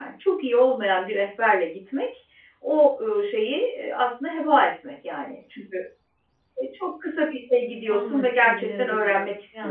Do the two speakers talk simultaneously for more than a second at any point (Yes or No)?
Yes